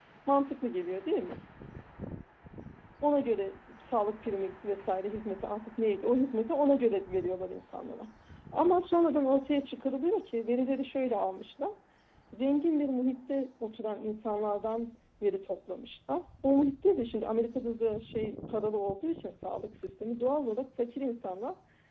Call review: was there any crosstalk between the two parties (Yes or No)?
No